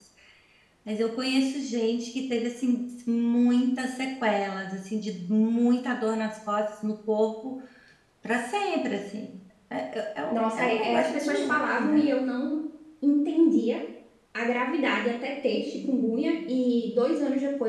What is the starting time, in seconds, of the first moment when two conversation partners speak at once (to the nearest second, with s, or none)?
10 s